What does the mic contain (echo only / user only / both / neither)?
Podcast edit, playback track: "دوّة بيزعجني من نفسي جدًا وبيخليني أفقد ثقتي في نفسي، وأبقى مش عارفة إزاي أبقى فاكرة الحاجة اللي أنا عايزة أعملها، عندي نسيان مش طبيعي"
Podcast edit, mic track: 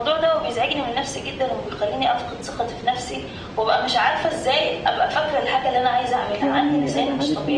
both